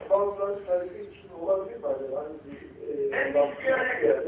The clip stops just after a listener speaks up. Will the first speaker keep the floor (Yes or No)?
No